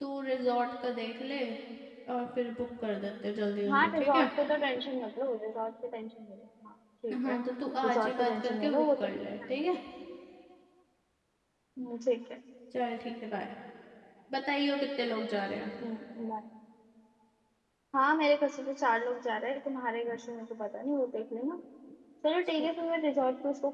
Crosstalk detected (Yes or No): Yes